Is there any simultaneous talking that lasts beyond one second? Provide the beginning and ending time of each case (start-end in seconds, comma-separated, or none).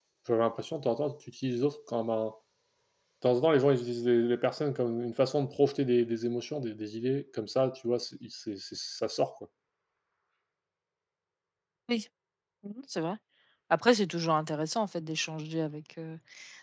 none